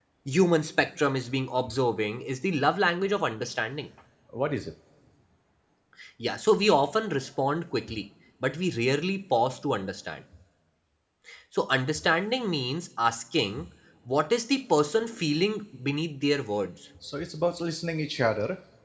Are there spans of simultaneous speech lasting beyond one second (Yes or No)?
No